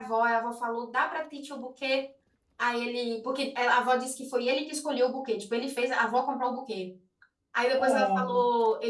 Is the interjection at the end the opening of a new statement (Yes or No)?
No